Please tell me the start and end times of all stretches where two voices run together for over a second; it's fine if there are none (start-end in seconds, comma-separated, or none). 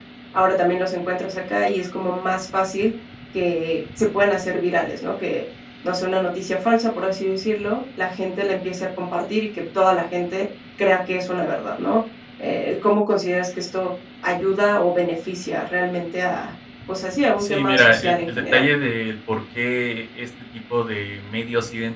17.4-18.7